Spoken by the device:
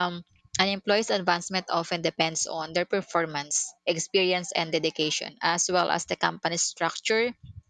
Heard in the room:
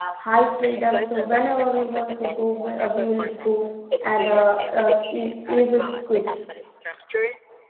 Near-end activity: present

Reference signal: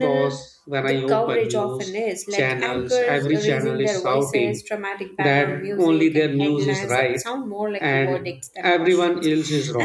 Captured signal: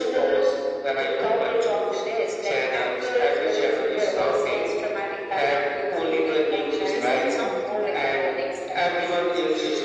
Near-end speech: present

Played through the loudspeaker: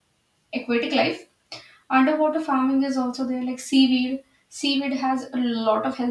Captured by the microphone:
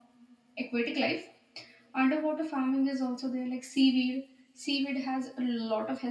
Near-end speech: none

